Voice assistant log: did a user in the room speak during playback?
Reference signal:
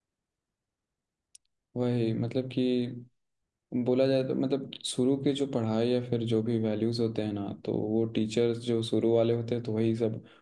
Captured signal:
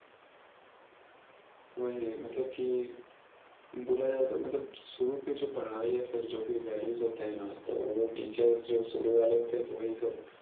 No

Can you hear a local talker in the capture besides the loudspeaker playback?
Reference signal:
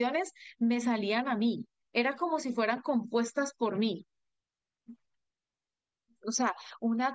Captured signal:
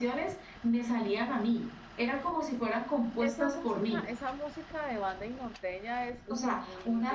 Yes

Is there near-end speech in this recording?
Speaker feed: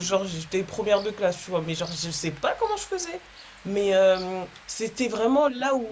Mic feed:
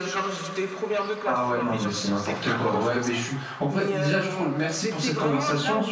Yes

